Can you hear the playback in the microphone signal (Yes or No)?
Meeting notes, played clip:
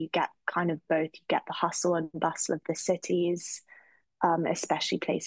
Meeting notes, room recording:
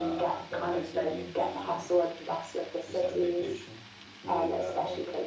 Yes